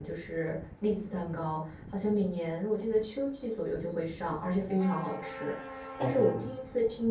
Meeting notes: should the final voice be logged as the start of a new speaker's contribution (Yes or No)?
No